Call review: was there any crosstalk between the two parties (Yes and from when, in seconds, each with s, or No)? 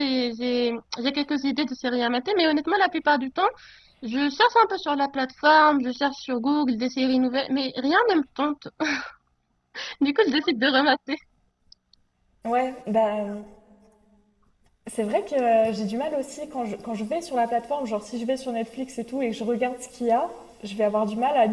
No